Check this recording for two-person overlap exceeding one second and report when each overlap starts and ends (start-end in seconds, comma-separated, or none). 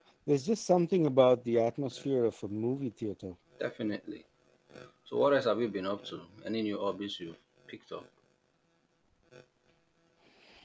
none